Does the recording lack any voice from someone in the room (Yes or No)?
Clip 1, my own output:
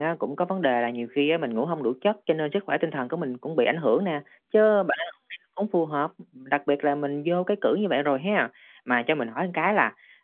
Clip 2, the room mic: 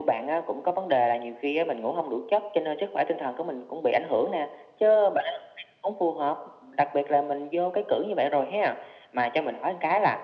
Yes